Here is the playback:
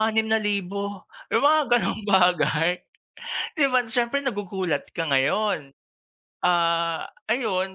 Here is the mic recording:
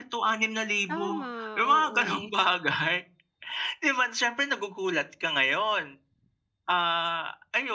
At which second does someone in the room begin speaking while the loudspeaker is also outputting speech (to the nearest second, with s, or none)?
1 s